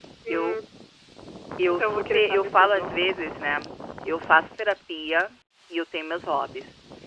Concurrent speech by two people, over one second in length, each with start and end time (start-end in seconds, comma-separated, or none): 1.7-2.9